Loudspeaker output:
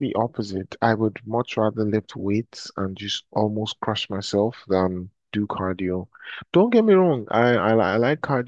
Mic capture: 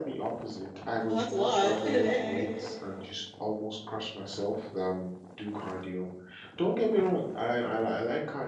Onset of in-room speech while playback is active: 1 s

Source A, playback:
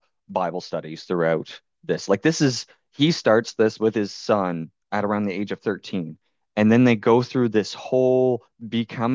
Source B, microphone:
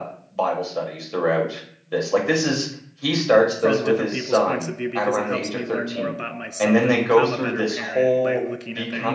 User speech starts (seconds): 4 s

